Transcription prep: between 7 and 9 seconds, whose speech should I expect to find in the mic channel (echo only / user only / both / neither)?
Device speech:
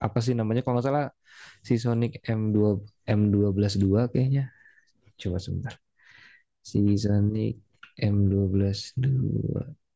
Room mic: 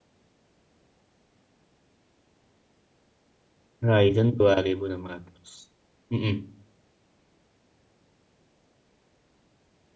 neither